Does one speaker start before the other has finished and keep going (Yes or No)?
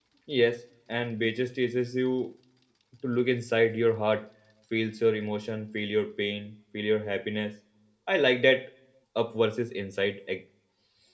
No